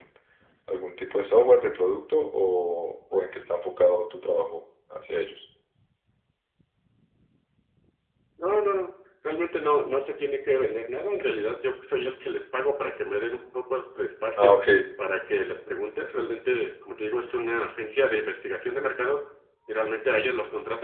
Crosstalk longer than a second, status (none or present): none